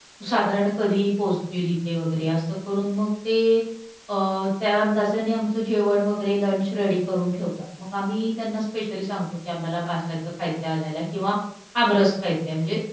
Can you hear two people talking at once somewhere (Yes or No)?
No